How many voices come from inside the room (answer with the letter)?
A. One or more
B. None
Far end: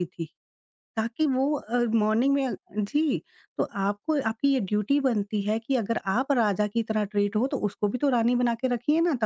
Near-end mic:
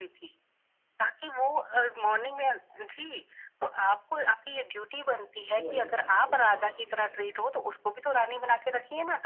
A